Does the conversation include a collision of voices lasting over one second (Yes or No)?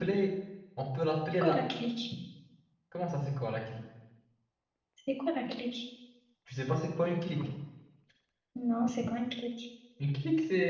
No